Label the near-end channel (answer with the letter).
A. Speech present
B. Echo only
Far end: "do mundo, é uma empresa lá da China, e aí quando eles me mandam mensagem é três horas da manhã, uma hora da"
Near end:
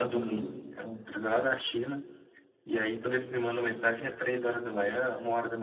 B